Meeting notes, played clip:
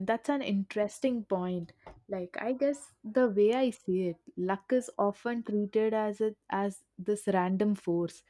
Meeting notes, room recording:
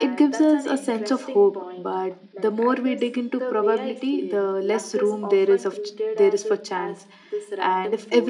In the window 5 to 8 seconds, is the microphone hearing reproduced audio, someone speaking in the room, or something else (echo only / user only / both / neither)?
both